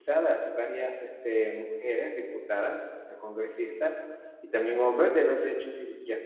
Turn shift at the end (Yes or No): No